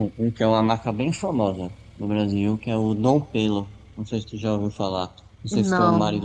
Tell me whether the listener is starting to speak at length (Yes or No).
No